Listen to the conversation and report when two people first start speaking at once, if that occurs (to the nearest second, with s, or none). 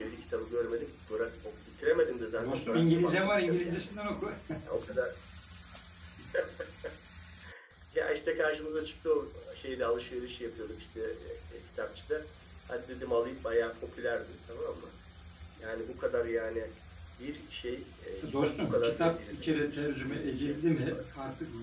2 s